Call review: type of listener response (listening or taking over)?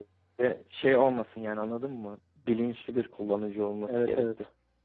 taking over